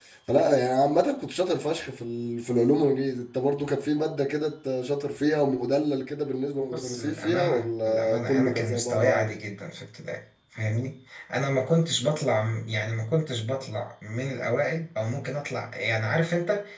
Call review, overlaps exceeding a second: present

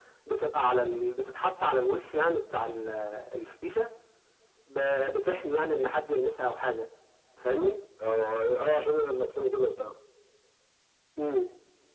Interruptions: none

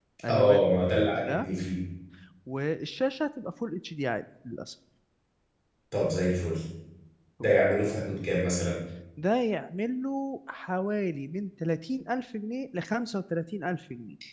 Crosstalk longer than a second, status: none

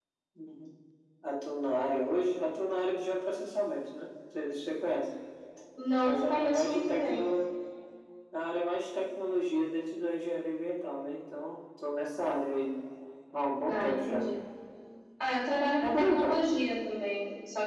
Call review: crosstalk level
present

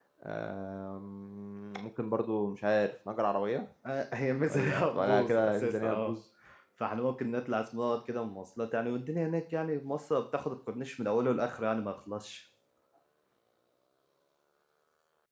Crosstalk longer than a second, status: present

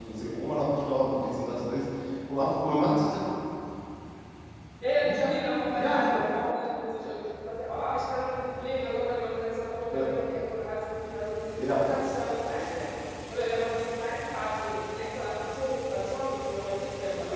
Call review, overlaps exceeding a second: none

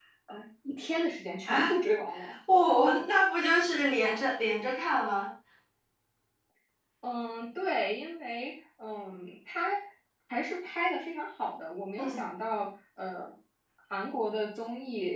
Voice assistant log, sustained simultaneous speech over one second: none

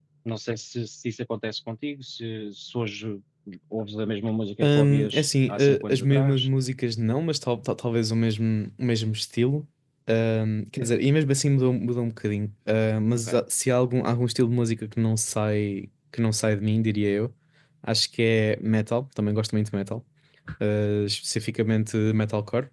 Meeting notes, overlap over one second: present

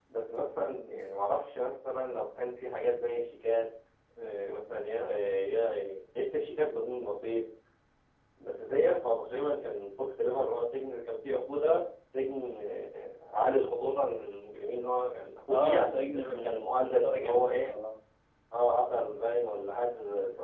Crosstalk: present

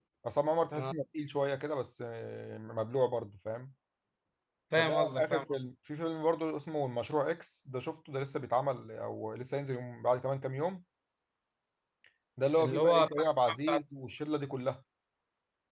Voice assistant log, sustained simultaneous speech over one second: present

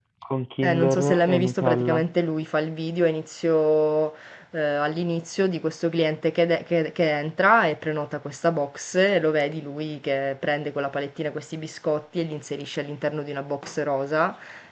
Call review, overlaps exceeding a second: present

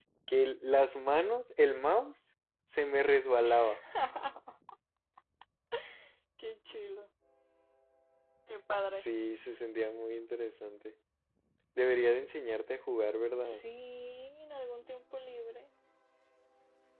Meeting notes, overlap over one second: none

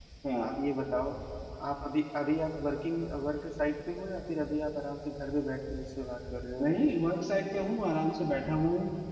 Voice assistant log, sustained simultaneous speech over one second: none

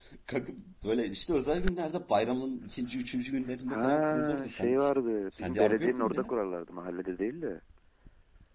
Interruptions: present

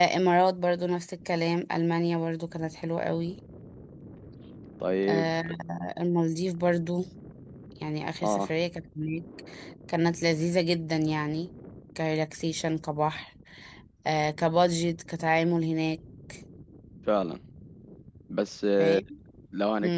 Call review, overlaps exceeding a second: none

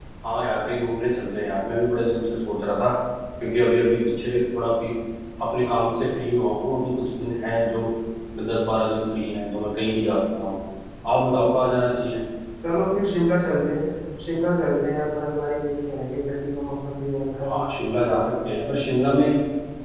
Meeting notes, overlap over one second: none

